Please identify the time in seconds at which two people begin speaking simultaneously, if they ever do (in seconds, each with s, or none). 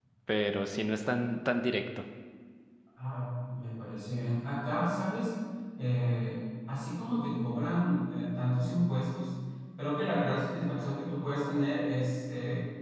none